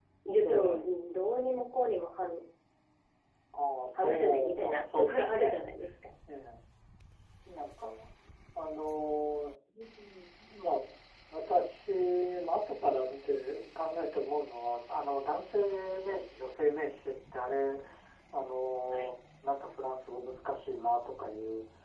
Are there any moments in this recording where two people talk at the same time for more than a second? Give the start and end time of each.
4.0-5.6

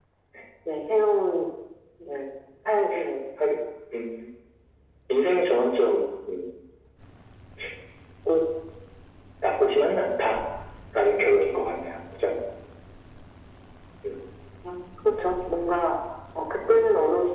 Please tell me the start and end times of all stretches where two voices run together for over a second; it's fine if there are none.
none

